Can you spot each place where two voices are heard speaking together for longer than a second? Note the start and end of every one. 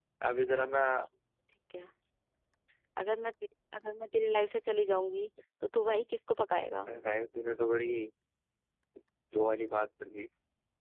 none

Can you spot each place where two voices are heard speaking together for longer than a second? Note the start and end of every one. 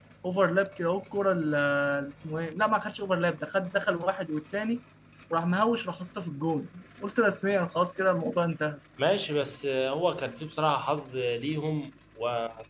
none

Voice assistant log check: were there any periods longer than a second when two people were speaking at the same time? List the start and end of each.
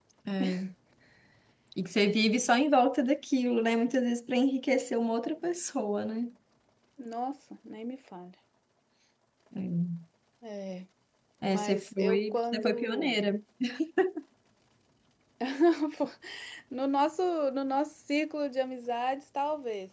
11.5-13.2

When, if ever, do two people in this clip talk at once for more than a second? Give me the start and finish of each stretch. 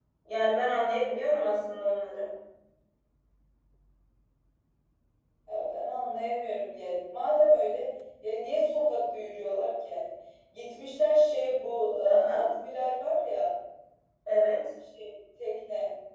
none

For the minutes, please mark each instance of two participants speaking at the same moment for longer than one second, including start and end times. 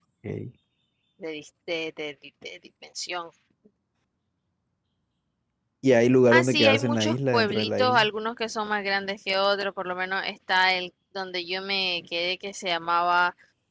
6.3-8.1

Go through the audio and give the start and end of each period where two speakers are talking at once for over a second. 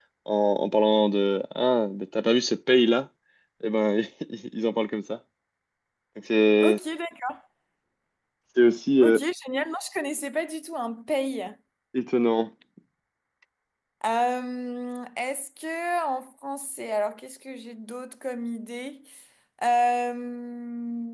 none

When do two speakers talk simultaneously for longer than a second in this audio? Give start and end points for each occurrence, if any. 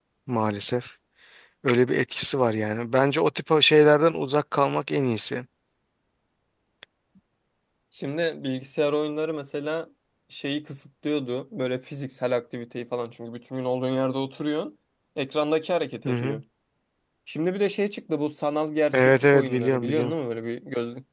18.9-20.1

